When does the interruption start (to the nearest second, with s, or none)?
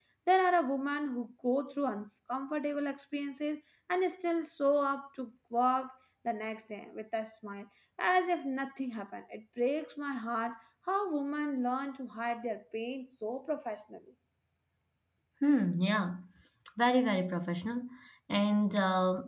none